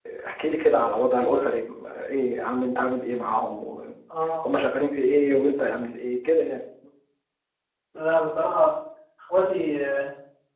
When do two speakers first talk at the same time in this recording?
none

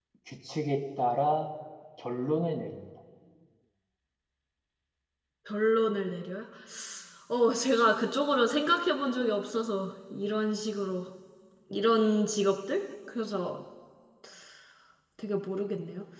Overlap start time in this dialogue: none

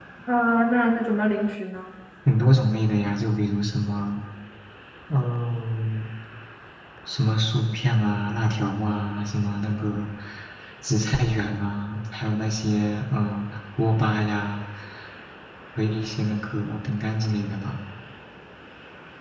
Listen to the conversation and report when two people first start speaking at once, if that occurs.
none

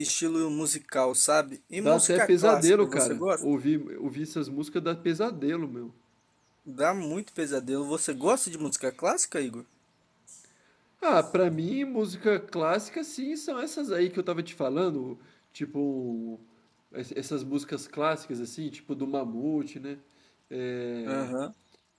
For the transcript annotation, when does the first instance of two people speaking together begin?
1.8 s

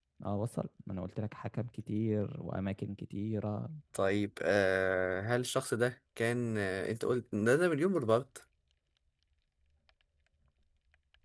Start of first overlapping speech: none

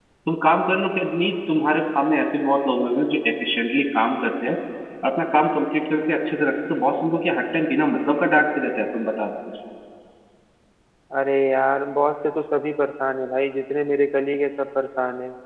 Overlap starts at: none

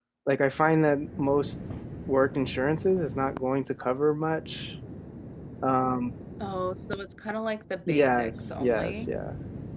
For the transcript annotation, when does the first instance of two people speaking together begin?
7.9 s

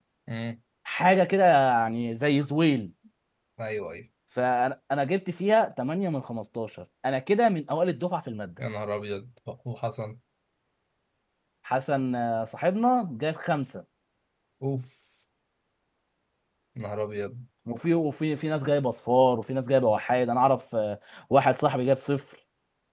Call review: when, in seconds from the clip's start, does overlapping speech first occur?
none

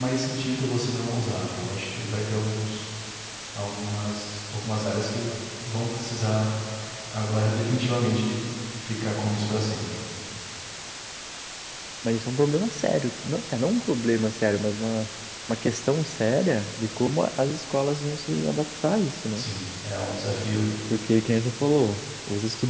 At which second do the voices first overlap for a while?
none

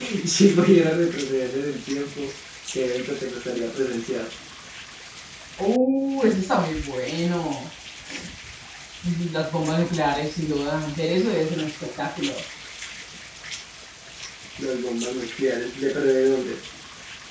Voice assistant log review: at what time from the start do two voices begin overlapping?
none

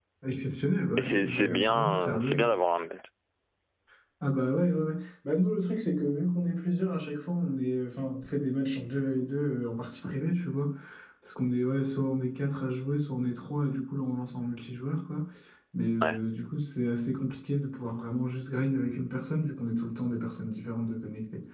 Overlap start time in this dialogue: 1.0 s

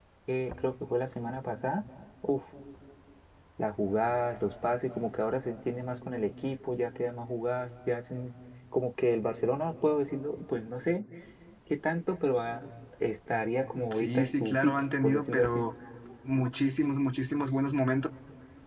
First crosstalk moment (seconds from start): 13.7 s

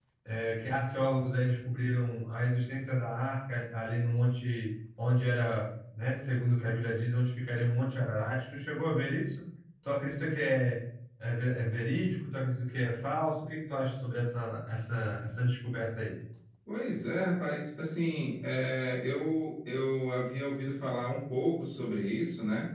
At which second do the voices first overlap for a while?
none

